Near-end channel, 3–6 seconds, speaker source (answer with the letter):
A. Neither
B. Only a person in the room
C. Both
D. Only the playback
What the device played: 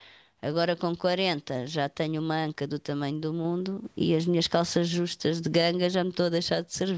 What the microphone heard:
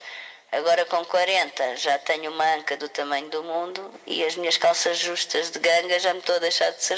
D